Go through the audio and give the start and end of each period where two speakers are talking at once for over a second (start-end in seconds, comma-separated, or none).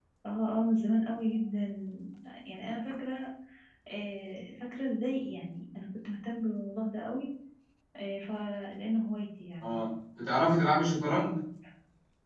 none